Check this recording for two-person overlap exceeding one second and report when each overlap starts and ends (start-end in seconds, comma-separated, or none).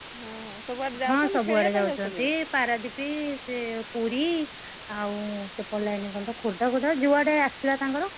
1.1-2.3